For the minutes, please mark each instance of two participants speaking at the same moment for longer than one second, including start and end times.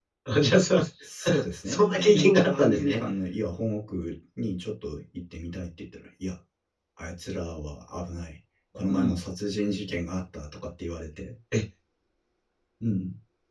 1.7-3.0

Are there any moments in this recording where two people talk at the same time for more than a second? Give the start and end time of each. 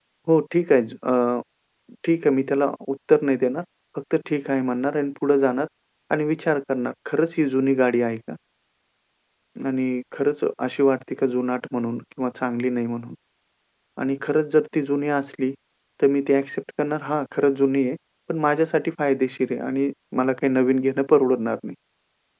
none

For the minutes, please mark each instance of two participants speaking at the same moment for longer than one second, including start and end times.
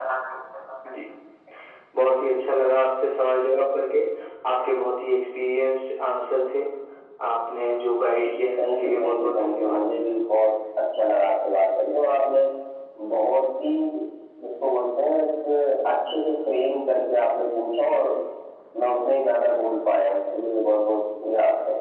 8.6-9.8

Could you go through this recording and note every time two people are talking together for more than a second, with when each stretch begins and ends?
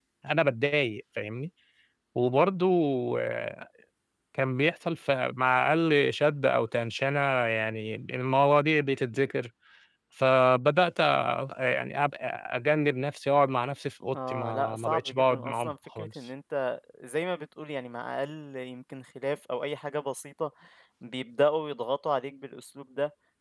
14.2-16.1

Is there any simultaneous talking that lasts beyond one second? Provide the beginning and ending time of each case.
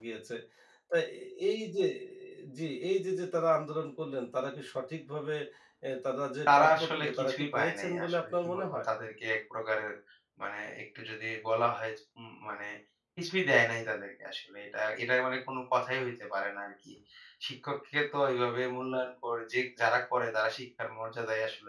6.5-8.8

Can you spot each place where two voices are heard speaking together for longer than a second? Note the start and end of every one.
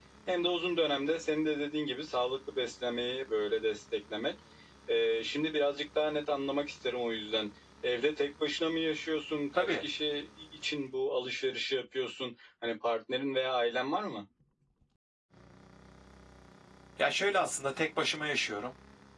none

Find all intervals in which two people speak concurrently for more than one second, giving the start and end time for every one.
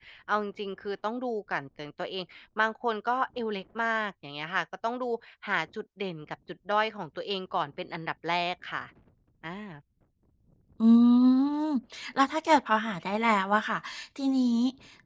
none

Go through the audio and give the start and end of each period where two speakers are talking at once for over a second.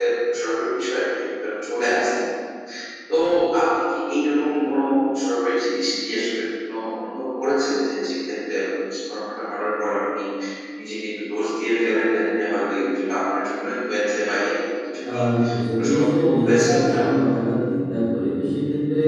15.7-17.0

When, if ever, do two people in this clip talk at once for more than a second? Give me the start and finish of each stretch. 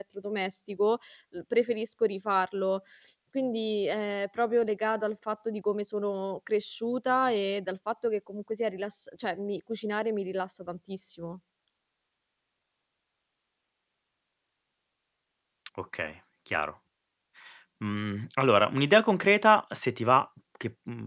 none

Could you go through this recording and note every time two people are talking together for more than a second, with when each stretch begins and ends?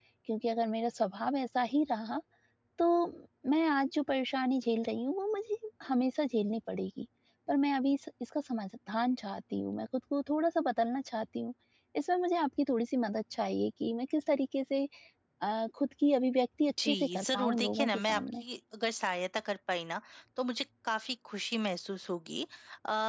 16.8-18.4

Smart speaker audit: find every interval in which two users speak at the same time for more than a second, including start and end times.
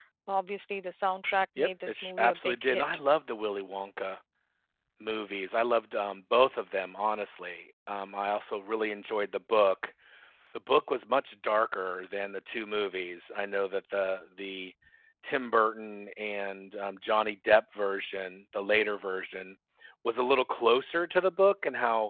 1.6-2.8

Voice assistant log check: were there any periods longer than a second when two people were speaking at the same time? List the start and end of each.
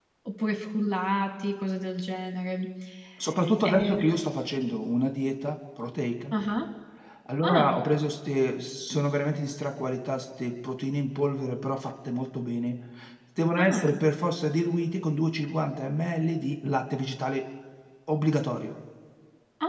none

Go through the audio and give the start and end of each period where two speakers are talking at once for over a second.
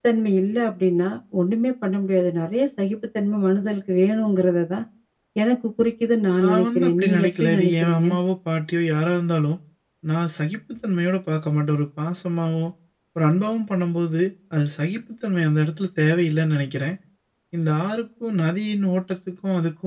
6.4-8.0

